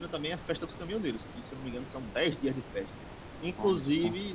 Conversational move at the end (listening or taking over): listening